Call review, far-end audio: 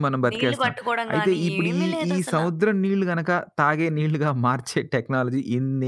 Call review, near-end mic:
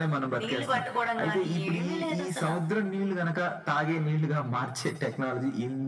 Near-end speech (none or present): none